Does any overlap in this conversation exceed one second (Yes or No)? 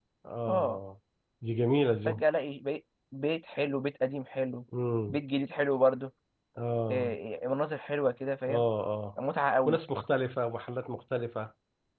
No